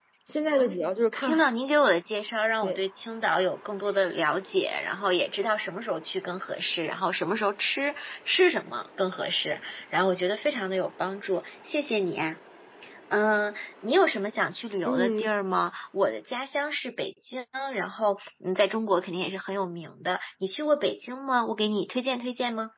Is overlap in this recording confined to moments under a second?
Yes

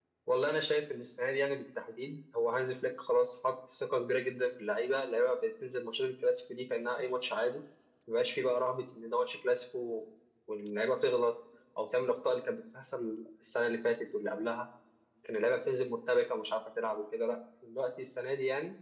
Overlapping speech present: No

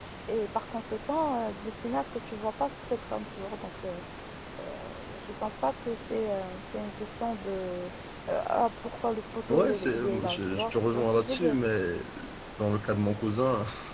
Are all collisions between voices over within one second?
No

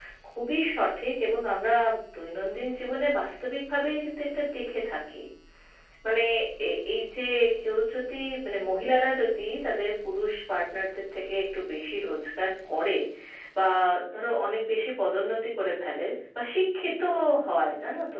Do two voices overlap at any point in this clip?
No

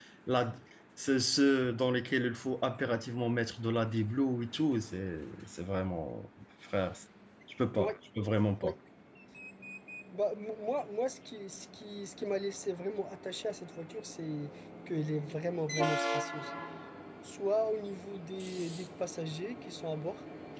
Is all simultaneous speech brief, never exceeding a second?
Yes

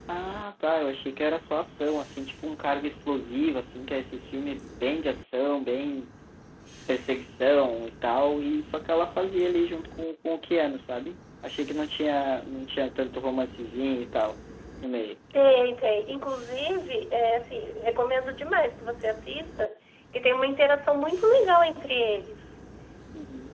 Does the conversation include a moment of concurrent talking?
No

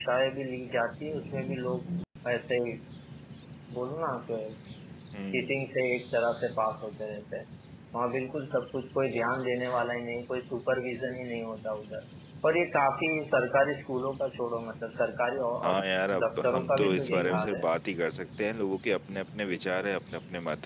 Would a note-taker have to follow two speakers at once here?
Yes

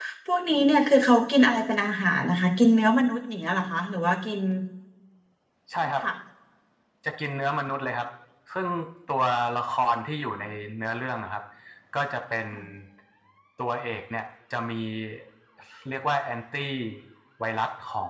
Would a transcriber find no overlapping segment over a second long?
Yes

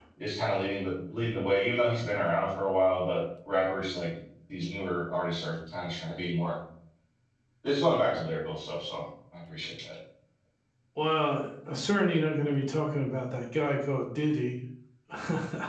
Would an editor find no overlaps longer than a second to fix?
Yes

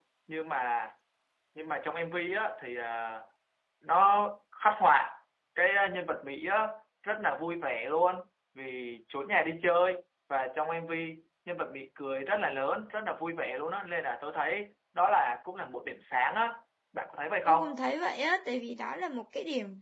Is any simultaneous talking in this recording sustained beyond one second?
No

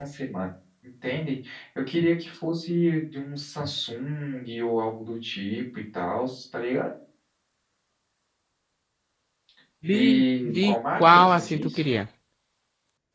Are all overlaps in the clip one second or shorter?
No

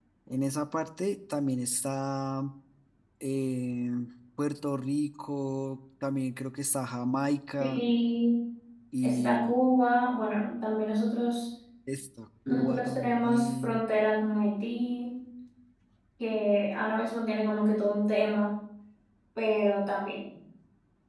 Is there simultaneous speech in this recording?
Yes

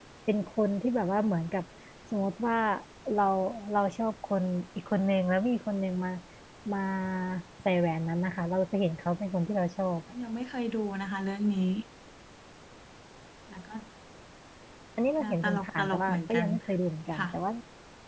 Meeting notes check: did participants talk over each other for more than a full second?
Yes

